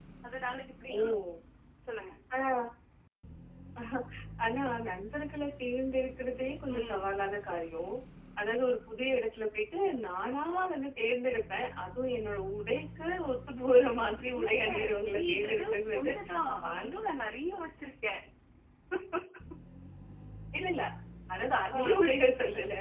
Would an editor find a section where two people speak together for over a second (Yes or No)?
Yes